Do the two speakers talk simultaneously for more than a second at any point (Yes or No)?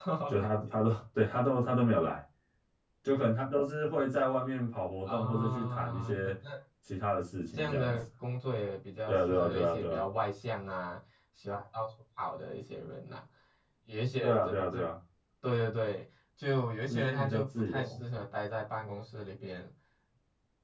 Yes